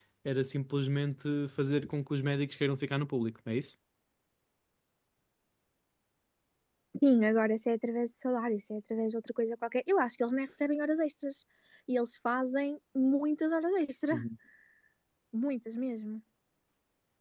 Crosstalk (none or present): none